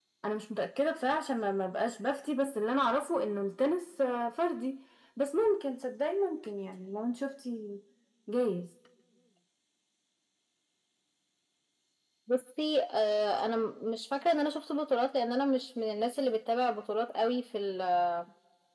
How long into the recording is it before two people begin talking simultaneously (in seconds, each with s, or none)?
none